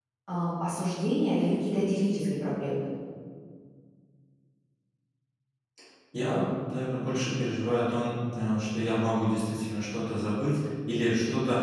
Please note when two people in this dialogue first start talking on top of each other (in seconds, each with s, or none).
none